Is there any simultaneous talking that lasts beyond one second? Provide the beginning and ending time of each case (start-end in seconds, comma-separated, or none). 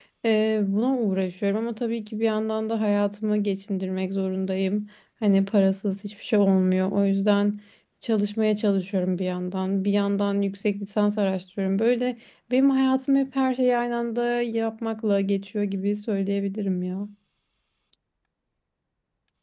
none